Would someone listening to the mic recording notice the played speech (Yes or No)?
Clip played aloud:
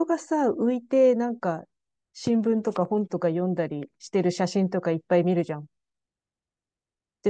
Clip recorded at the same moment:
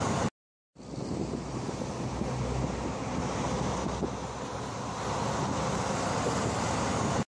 No